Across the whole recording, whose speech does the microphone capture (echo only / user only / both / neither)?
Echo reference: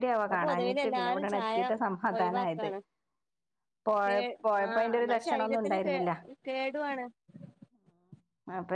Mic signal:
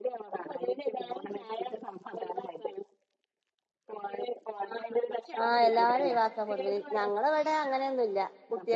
both